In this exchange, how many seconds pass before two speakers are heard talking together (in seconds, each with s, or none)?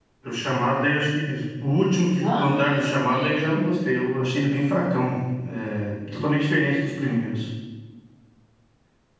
2.2 s